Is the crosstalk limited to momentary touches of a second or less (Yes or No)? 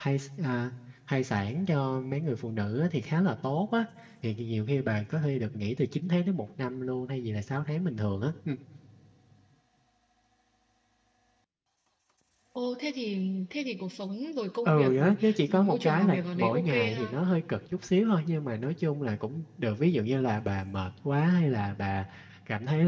No